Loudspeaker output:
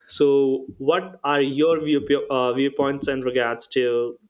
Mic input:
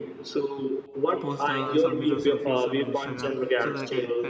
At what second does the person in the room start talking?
1.2 s

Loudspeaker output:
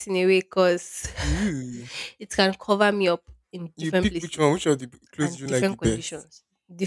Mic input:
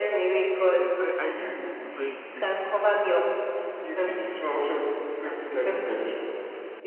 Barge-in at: 0.7 s

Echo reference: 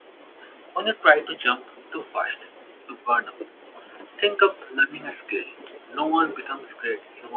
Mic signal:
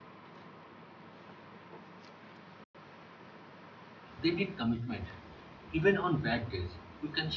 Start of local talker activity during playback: 4.2 s

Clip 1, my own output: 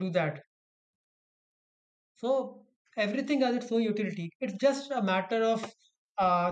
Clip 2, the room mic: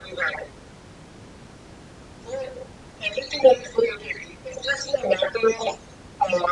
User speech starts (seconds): none

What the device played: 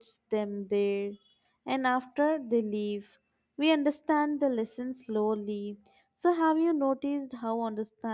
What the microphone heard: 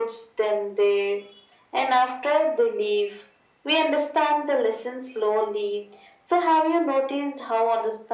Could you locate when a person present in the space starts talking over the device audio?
none

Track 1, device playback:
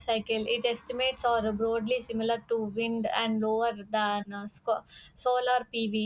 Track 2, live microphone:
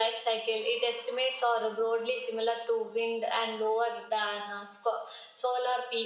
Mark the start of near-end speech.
none

